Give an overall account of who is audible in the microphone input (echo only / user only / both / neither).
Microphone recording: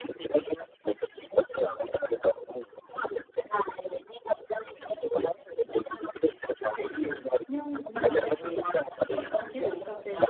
both